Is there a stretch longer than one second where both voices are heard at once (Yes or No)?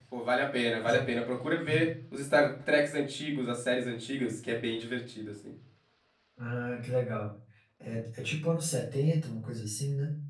No